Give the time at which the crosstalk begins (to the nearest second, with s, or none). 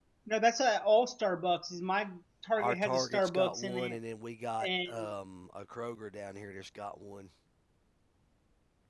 3 s